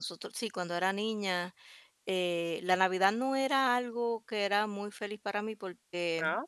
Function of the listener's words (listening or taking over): listening